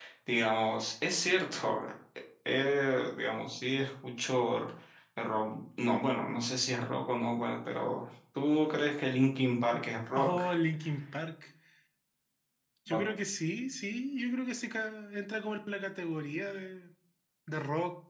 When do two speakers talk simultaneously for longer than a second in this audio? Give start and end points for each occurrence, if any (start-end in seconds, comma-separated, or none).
none